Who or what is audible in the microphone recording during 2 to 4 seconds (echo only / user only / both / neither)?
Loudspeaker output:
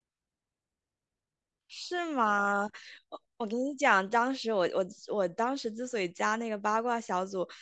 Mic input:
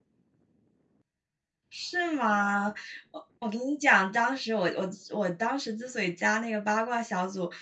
echo only